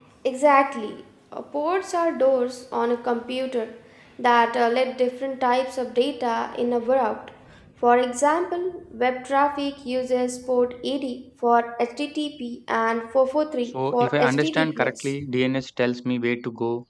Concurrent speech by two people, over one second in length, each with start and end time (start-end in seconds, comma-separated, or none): 13.7-15.1